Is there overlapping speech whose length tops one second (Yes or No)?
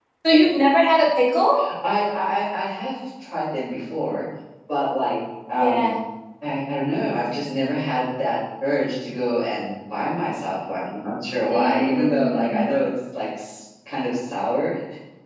Yes